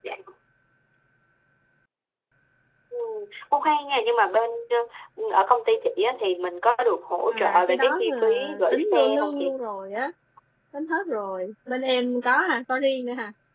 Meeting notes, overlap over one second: present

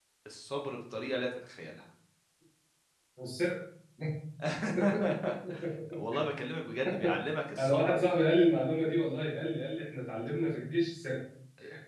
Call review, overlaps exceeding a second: none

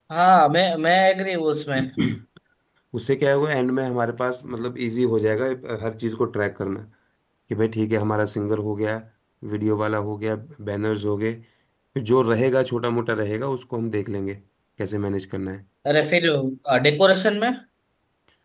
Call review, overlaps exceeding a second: none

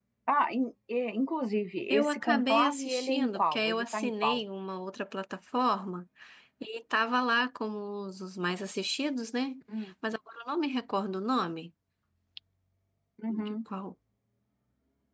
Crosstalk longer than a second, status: present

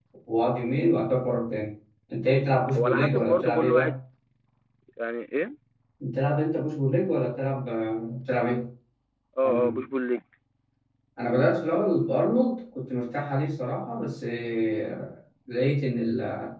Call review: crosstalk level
present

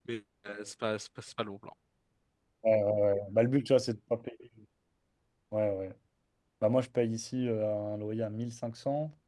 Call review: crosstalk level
none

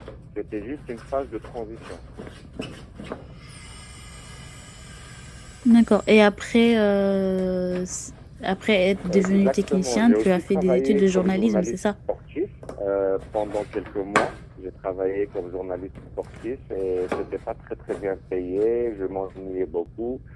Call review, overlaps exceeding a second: present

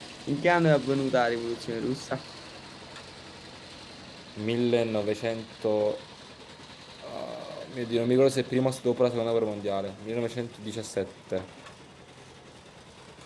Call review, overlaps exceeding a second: none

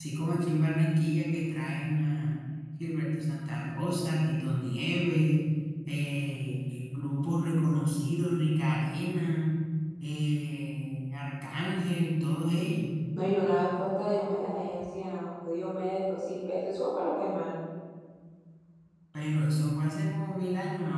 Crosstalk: none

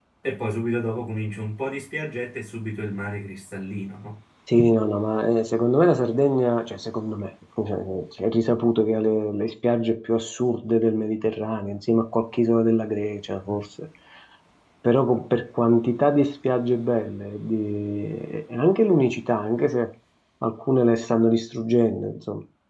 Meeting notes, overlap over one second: none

